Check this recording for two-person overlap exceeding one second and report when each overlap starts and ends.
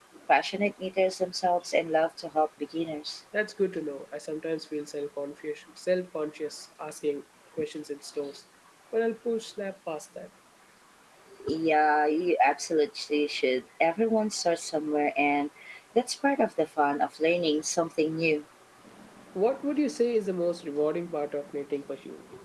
none

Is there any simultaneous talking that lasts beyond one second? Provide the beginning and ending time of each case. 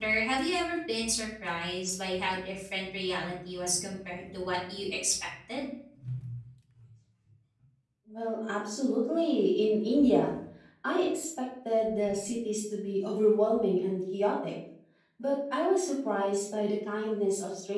none

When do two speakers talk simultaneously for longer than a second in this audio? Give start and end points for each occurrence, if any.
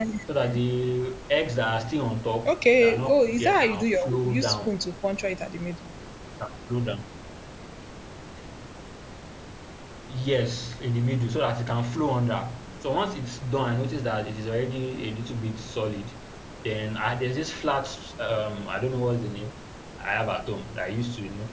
2.5-4.7

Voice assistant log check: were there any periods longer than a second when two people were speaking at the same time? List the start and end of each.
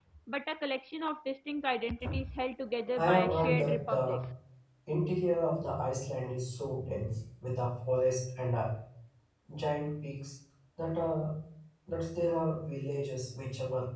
3.0-4.2

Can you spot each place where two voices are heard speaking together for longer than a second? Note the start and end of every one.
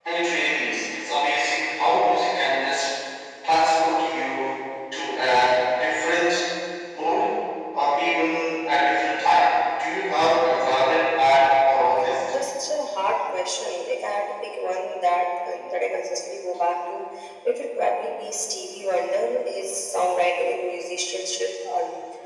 none

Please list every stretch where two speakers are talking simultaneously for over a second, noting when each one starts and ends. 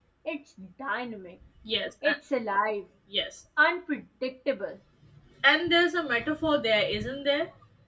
none

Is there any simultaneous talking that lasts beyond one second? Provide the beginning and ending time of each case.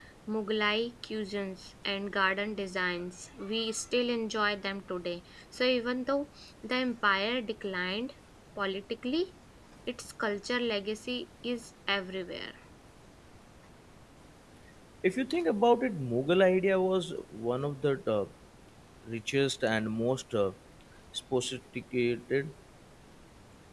none

